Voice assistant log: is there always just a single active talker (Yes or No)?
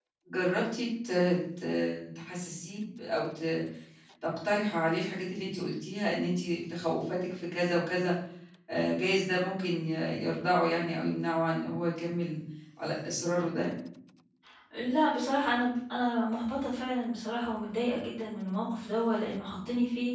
Yes